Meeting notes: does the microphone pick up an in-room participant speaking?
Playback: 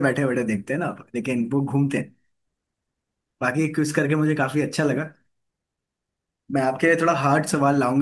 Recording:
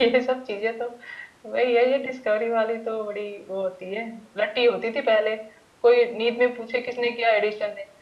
Yes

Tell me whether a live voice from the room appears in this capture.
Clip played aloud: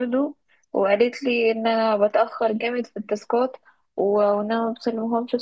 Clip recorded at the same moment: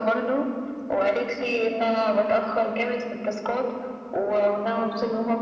No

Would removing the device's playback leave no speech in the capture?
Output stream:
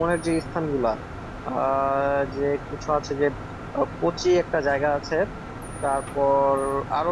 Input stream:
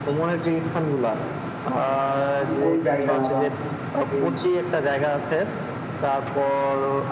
No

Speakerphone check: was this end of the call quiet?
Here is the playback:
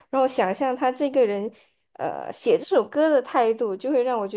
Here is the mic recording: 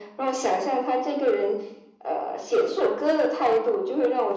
Yes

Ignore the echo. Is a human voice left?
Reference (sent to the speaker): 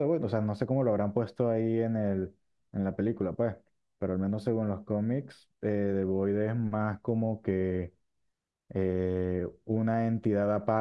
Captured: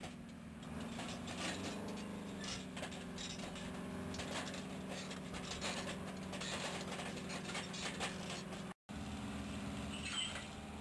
No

